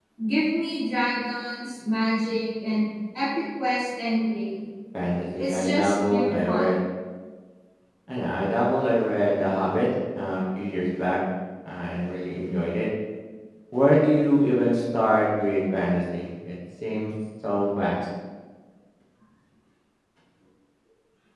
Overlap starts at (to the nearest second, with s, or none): 5 s